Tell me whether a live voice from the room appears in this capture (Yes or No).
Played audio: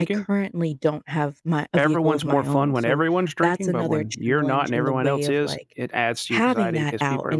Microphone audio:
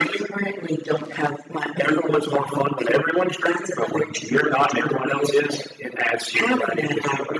No